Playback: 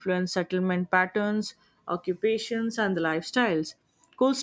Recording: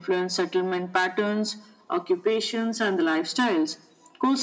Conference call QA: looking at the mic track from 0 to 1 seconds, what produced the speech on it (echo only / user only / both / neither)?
echo only